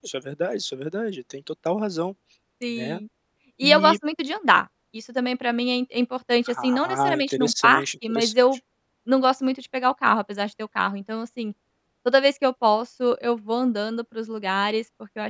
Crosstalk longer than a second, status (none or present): present